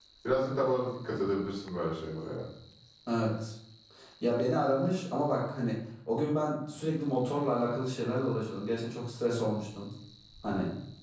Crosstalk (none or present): none